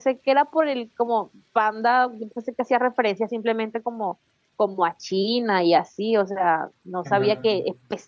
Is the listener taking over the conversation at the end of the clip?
No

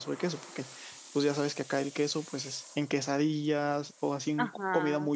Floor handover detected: Yes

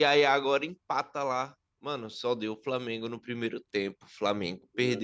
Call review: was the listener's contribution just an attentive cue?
Yes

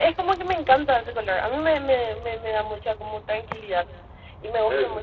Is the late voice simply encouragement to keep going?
Yes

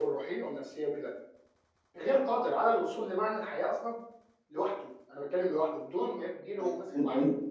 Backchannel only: No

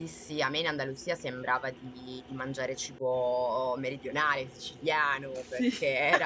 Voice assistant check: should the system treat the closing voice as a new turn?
No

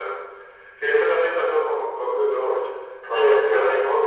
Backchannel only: Yes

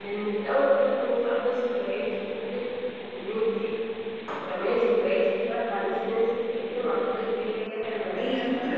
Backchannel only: No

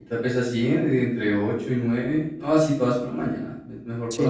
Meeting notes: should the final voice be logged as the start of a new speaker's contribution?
Yes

